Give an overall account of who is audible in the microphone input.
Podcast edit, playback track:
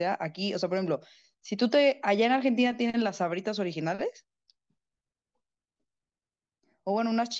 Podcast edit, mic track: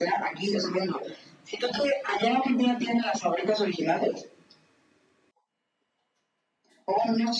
echo only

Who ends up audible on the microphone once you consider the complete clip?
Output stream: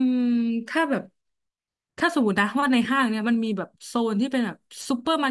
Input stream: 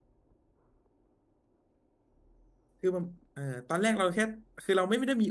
user only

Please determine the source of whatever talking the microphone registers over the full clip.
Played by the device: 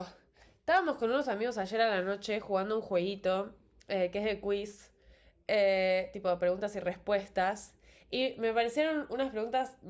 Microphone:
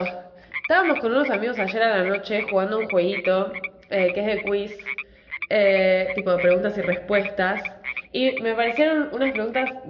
echo only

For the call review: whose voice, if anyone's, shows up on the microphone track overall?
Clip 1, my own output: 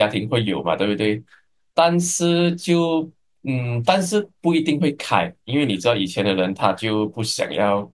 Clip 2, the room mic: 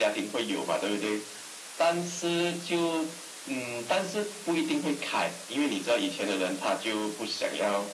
echo only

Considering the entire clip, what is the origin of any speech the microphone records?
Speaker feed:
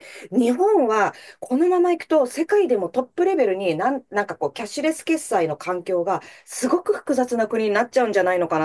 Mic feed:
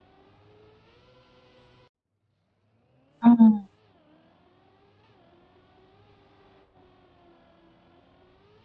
user only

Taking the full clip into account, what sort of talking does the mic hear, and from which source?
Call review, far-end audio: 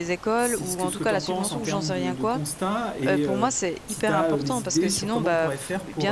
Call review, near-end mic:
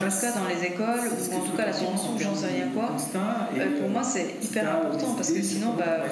echo only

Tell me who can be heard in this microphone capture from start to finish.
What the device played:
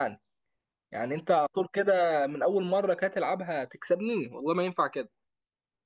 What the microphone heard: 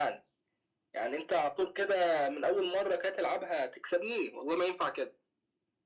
echo only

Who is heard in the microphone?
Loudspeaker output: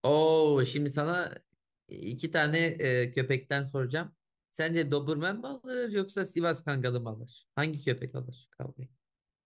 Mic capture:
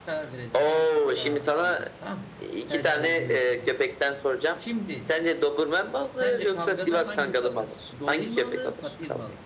both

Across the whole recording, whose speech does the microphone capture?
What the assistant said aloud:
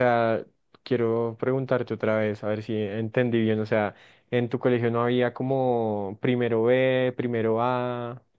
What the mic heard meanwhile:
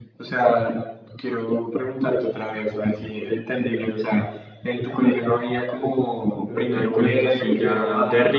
both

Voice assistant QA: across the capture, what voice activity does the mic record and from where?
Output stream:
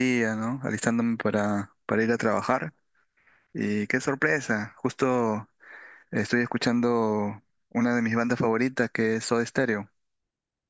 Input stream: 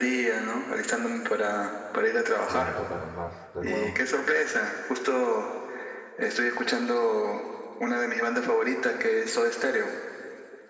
both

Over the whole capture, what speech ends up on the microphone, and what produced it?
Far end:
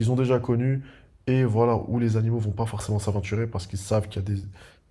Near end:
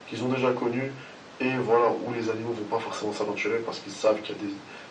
echo only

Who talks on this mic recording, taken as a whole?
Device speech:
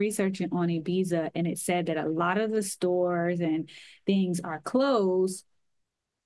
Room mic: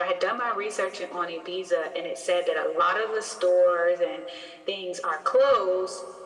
echo only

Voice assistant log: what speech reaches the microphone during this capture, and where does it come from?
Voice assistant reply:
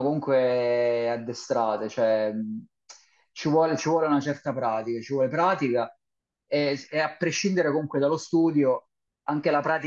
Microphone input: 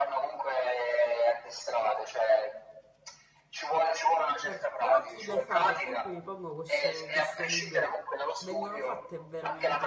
both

